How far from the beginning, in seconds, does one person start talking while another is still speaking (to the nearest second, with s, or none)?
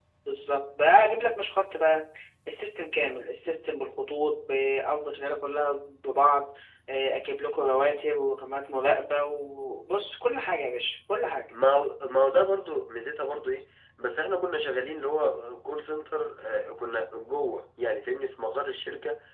none